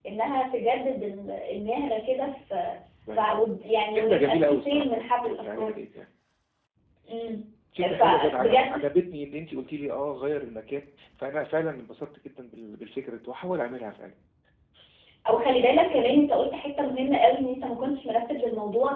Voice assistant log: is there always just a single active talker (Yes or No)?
No